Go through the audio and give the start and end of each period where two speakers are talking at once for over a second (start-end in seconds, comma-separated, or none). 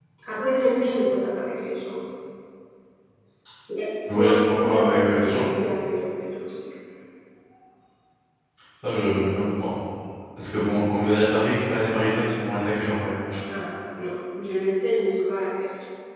4.1-5.4